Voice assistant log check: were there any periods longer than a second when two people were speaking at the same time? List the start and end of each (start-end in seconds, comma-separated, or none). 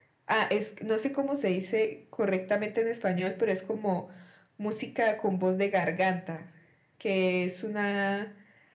none